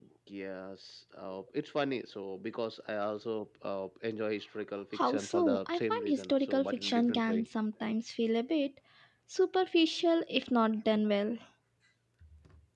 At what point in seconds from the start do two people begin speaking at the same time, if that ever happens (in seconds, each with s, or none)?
4.9 s